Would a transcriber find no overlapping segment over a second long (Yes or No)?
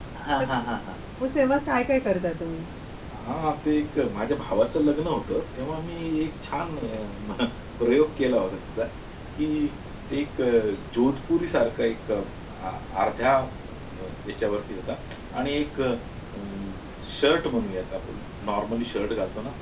Yes